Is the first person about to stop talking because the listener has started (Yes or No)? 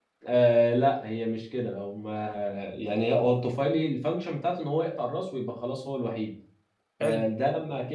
No